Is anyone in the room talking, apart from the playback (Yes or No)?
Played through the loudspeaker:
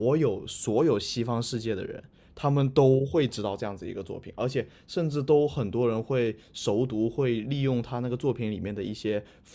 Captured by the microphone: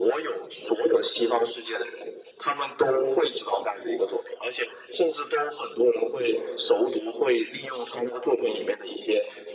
No